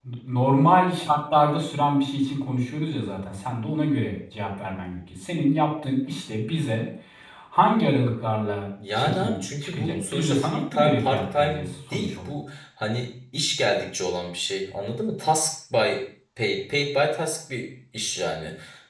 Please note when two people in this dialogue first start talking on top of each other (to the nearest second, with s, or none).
9 s